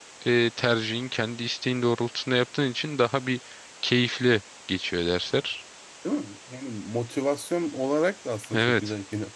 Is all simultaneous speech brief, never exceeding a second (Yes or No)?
Yes